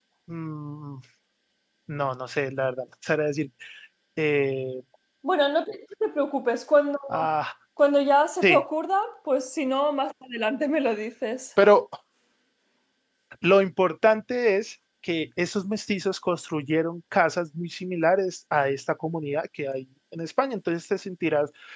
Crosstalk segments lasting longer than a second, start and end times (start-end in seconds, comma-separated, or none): none